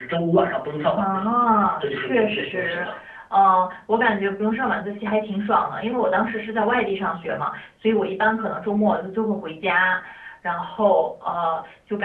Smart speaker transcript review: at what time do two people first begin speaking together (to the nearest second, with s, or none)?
1 s